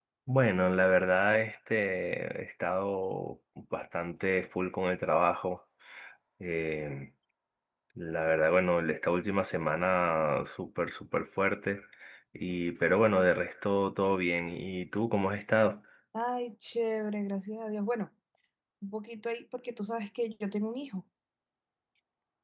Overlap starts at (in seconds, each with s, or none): none